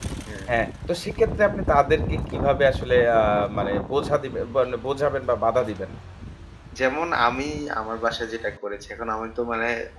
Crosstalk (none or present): none